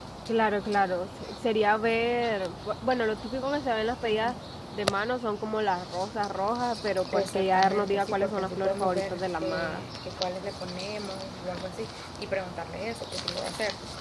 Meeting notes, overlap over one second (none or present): present